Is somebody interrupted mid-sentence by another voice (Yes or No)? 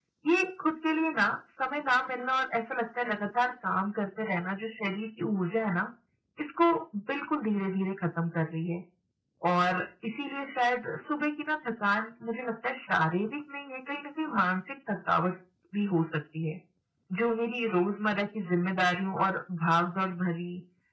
No